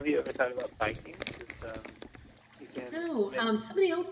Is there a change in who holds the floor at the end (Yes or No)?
Yes